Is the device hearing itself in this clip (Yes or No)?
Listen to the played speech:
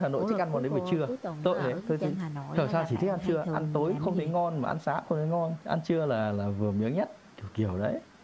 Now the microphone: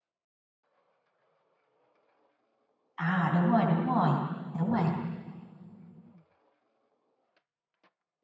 No